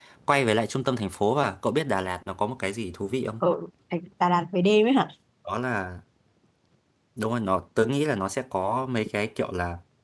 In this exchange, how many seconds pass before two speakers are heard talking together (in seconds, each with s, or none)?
none